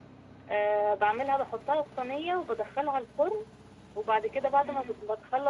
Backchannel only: Yes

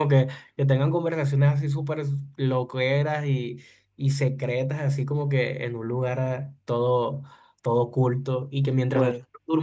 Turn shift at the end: No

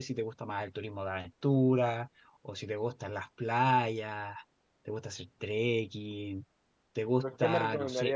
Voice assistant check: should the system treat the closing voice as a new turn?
Yes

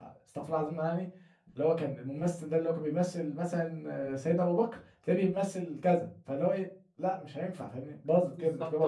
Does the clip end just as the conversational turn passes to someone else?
Yes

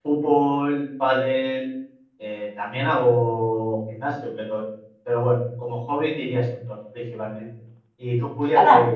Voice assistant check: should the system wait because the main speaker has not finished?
No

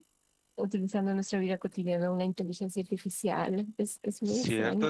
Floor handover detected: Yes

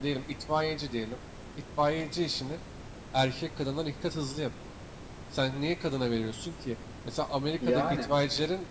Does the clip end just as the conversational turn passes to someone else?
No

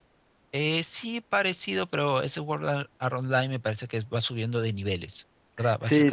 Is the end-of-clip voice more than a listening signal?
Yes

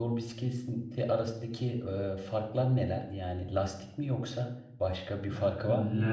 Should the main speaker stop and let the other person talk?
Yes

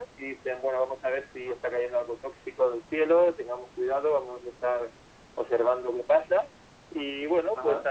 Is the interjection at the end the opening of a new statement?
No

